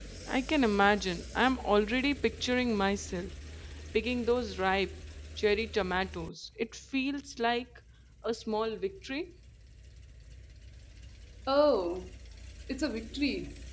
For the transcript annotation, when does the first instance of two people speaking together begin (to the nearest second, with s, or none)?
none